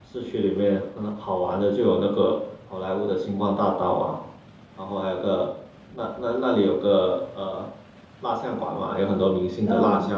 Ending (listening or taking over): listening